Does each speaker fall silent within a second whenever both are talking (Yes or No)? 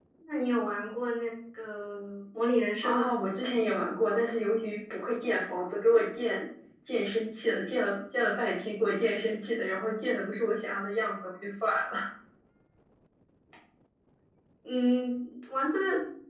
Yes